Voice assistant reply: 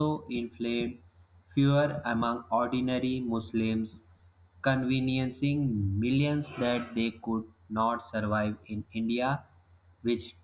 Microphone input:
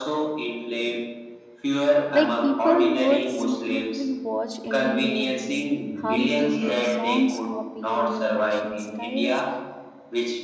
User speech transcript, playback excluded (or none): Like people would secretly watch Indian movies, hum Indian songs, copy Indian fashion styles.